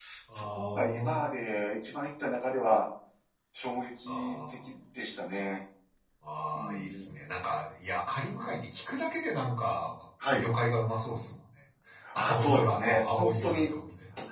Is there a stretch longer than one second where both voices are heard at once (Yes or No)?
Yes